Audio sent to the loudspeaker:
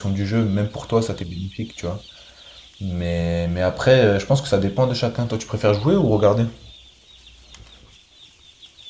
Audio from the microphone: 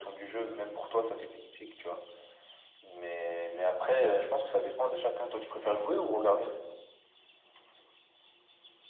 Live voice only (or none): none